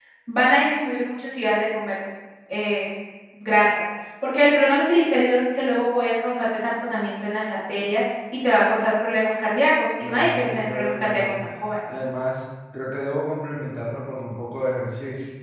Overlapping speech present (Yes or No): Yes